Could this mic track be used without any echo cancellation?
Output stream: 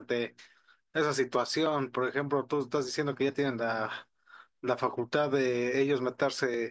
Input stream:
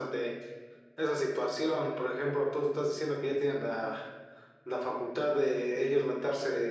No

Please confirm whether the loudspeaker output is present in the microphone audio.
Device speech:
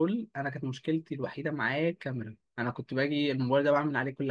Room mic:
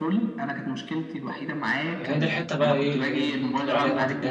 Yes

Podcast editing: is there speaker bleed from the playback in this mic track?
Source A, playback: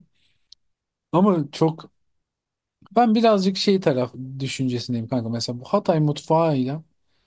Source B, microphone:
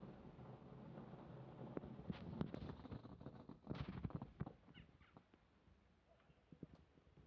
No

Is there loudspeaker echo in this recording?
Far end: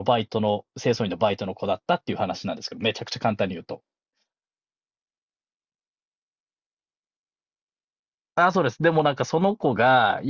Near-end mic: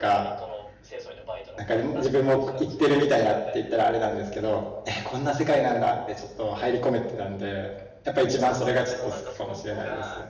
Yes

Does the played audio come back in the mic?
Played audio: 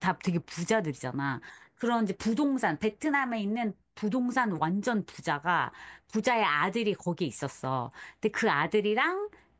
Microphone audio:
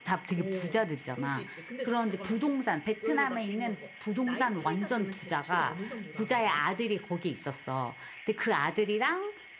Yes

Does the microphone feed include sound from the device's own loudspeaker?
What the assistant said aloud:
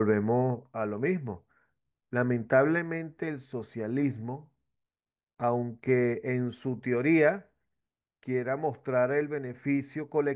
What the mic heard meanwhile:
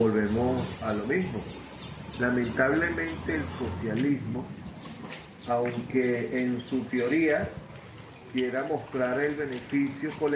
Yes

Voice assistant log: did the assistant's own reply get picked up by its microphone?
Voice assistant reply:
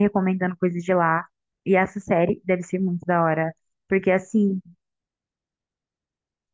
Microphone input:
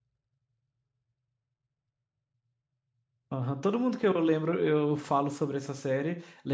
No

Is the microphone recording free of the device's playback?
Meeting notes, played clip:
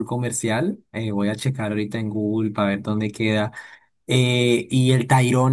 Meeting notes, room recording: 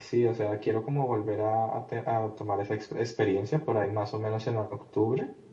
Yes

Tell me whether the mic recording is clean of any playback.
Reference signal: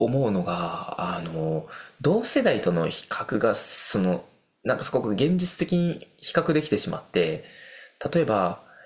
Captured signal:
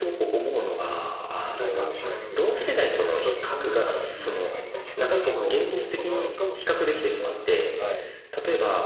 No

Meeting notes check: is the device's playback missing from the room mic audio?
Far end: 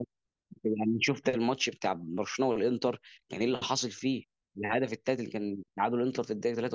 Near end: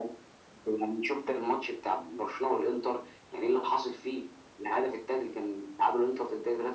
No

